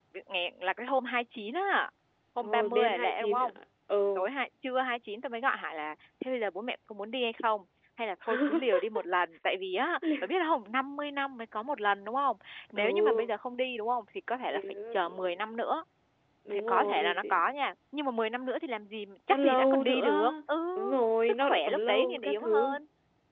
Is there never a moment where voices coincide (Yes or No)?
No